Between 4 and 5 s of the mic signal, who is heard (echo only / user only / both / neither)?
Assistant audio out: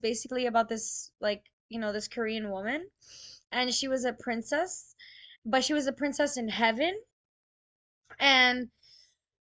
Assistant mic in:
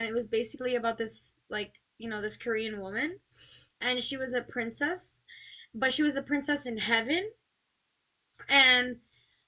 echo only